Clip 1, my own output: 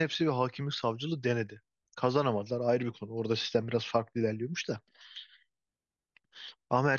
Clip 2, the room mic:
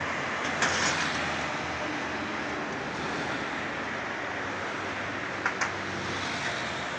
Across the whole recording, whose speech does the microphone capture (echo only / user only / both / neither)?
neither